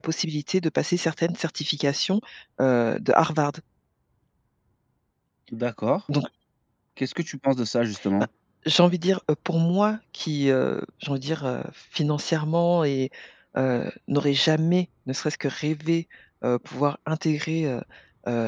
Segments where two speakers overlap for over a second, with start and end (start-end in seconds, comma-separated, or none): none